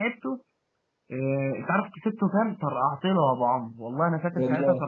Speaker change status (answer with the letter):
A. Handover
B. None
B